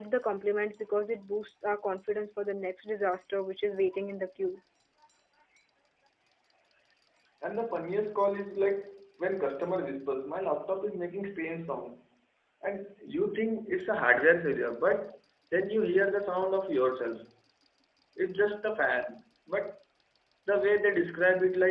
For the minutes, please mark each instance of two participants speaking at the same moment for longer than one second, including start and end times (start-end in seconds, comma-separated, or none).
none